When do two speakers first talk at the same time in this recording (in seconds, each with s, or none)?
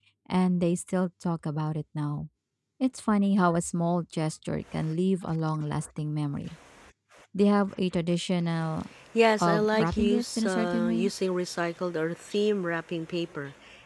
9.4 s